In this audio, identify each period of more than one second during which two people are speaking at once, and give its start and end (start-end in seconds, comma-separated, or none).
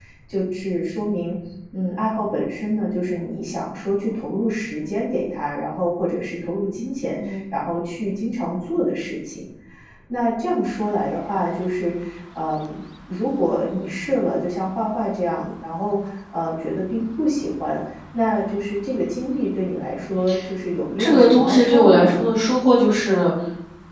21.0-22.3